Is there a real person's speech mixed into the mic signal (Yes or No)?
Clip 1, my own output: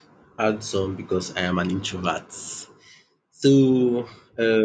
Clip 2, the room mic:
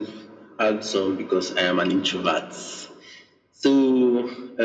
No